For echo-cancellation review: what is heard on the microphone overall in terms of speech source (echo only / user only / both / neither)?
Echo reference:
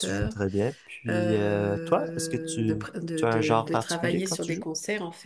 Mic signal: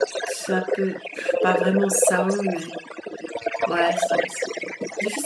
both